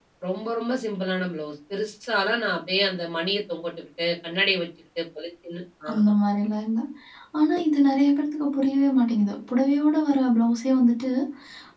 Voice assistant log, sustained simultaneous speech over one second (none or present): none